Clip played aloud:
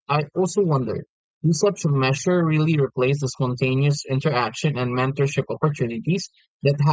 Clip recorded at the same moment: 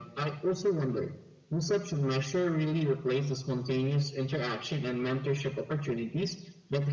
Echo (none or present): present